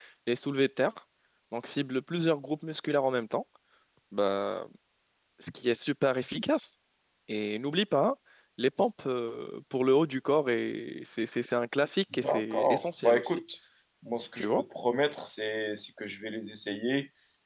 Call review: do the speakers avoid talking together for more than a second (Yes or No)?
No